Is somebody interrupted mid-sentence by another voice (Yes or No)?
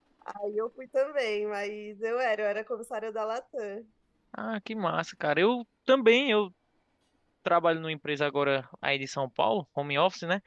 No